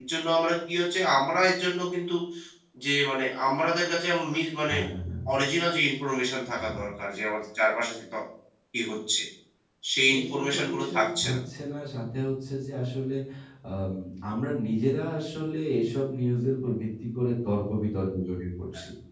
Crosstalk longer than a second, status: present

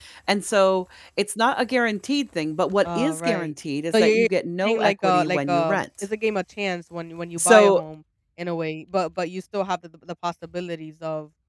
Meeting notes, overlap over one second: present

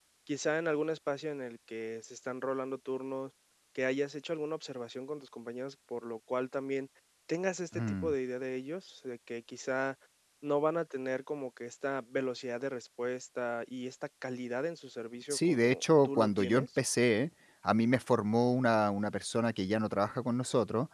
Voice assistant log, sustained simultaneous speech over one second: present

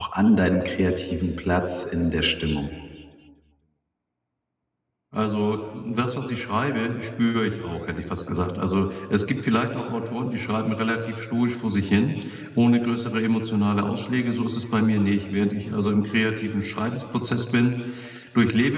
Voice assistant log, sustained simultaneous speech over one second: none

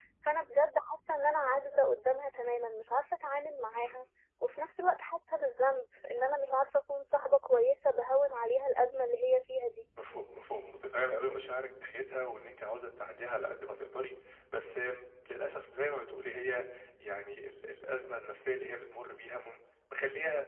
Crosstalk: none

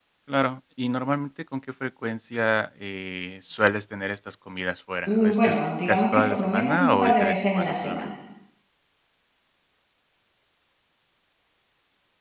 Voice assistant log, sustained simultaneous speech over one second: present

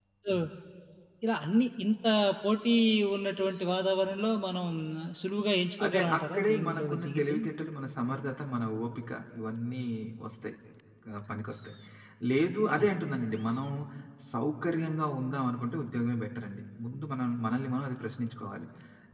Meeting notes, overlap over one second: present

